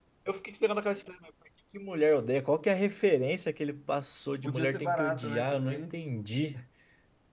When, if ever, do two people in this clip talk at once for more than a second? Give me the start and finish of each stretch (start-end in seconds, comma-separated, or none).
4.4-5.8